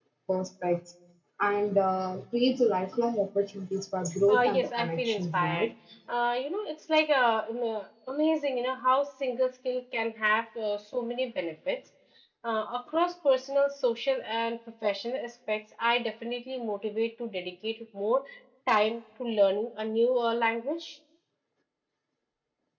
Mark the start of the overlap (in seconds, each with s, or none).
4.3 s